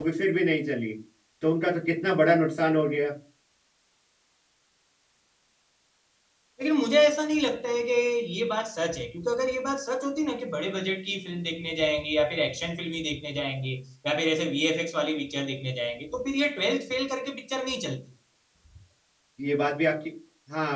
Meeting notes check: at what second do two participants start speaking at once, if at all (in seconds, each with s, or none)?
none